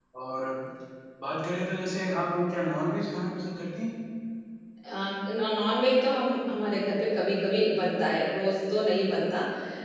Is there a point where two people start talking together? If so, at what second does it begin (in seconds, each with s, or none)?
none